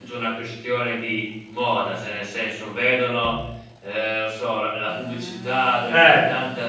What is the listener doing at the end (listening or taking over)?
listening